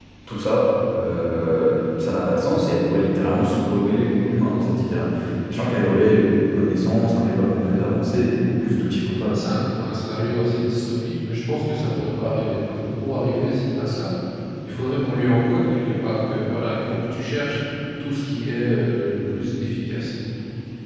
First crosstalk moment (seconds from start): none

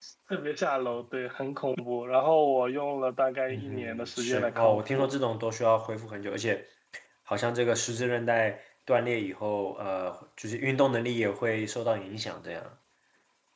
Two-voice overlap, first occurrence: 3.5 s

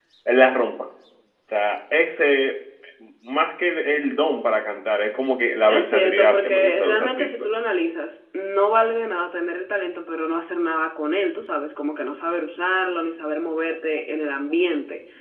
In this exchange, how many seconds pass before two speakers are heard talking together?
5.7 s

